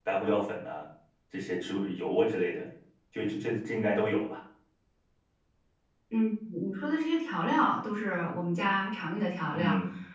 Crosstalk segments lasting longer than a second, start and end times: none

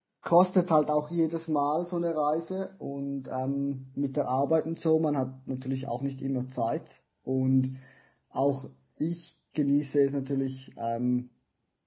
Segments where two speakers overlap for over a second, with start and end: none

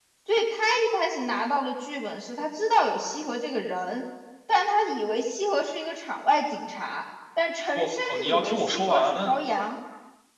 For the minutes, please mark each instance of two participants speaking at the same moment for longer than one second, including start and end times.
7.8-9.4

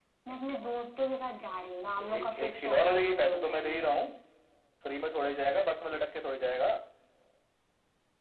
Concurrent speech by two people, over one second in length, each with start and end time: 2.0-3.9

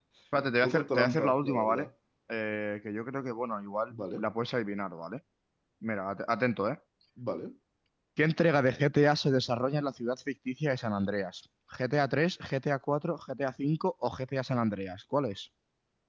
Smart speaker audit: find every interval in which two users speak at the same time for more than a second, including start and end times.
0.5-1.9

